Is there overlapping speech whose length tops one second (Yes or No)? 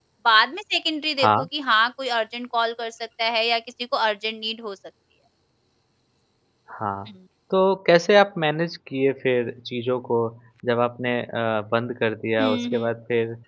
No